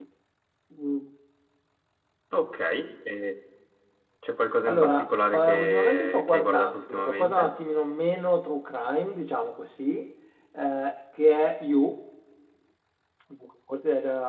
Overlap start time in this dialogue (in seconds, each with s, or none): 4.7 s